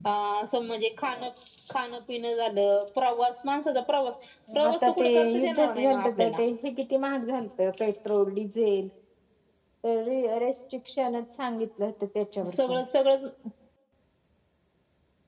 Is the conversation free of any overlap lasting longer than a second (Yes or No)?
No